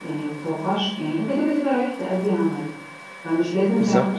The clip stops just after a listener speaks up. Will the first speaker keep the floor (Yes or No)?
Yes